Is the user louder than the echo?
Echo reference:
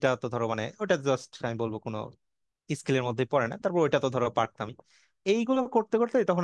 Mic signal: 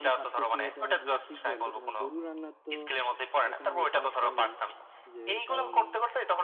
No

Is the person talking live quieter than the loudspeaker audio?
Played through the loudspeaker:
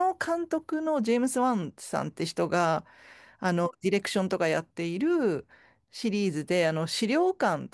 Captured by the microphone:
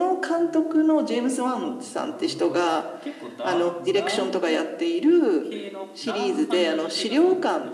Yes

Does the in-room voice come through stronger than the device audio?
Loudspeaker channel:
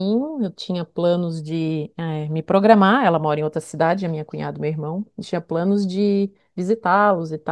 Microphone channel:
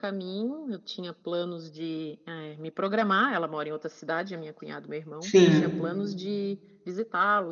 Yes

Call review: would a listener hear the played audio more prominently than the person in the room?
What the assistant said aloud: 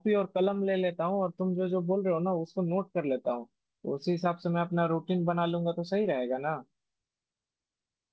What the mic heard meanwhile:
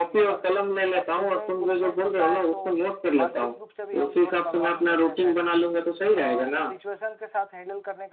Yes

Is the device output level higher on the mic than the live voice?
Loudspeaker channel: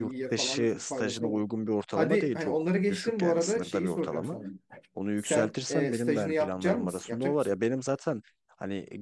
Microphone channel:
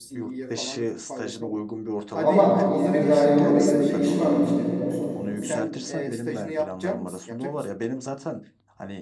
No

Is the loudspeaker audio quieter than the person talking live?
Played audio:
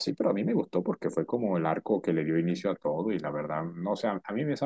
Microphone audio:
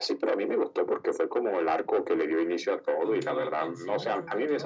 No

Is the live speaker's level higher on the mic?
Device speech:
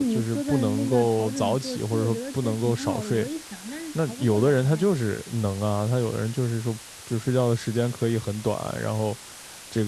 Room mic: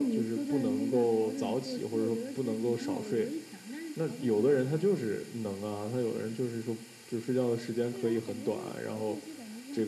No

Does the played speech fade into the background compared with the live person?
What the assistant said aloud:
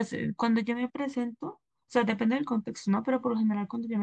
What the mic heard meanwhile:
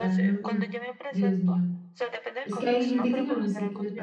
Yes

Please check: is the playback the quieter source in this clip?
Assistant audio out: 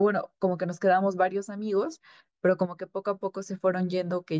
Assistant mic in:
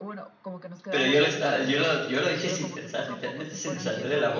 Yes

